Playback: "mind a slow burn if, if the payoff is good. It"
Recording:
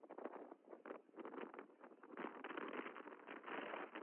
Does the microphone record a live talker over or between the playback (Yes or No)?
No